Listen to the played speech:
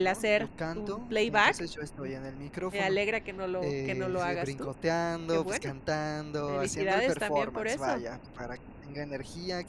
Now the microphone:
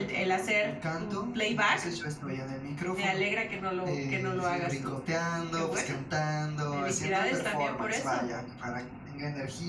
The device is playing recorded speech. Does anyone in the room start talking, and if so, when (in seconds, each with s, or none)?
none